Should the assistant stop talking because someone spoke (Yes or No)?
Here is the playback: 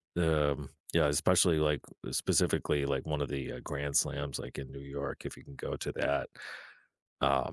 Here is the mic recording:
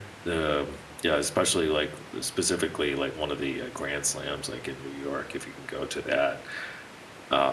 No